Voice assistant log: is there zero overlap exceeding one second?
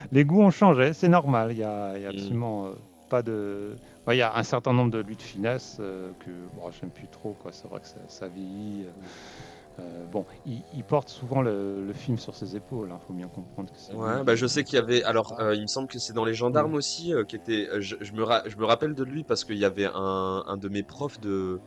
No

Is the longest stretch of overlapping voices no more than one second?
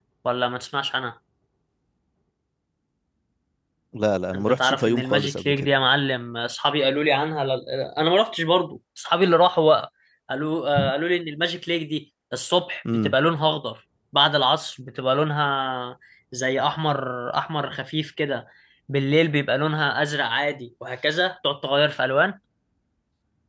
No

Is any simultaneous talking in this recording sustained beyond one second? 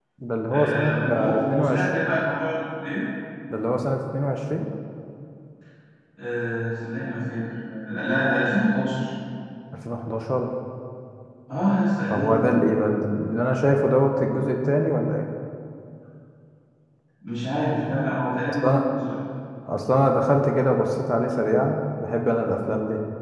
Yes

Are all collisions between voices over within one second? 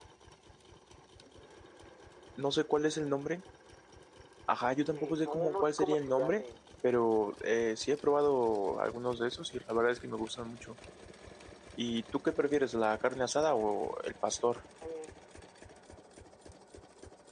No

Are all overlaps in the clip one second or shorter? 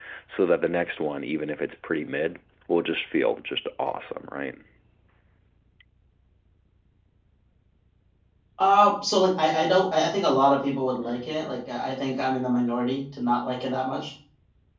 Yes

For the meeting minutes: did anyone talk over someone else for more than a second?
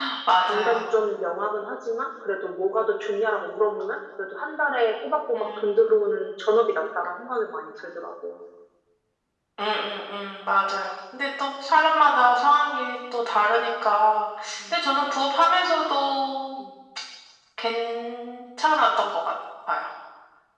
No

